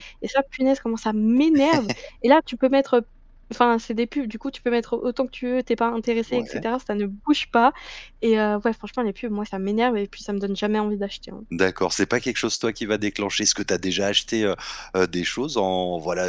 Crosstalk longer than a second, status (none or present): none